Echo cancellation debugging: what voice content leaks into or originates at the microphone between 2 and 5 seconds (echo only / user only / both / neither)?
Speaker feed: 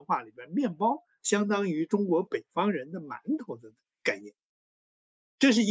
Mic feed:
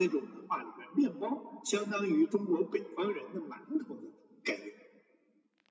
echo only